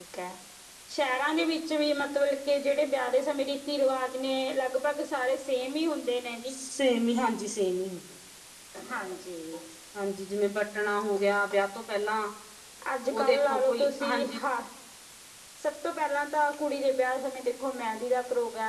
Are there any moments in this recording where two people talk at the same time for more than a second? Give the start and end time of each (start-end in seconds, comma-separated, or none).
13.1-14.4